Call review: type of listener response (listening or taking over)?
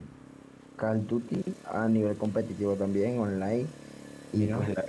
listening